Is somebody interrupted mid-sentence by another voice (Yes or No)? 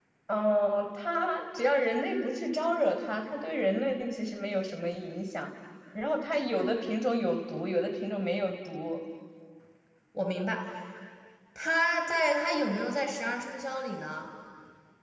No